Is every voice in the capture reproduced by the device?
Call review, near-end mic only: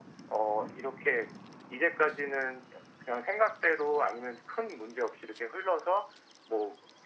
Yes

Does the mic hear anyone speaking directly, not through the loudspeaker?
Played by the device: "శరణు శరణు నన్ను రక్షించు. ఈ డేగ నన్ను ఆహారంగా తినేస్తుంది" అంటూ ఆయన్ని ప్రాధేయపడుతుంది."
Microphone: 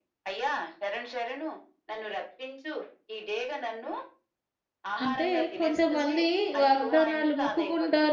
Yes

